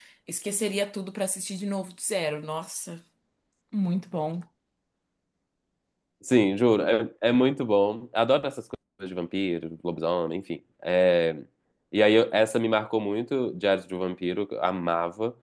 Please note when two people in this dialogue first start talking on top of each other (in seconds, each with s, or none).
none